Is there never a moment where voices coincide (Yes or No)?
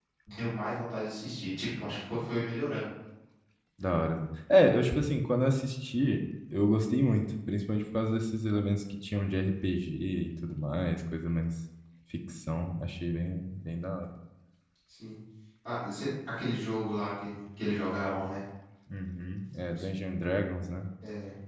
Yes